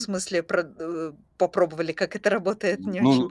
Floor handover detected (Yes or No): Yes